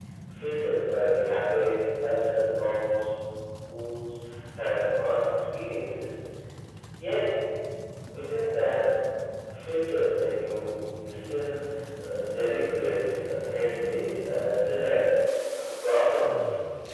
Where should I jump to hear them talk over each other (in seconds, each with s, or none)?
none